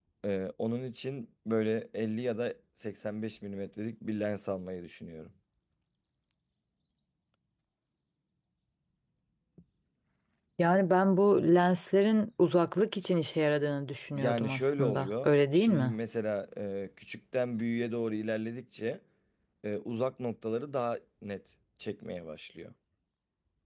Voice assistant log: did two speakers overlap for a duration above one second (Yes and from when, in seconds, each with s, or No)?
Yes, from 14.2 s